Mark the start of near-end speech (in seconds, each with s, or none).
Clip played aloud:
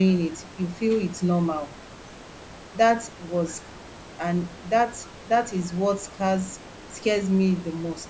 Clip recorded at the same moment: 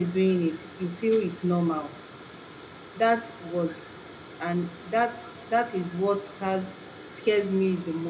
none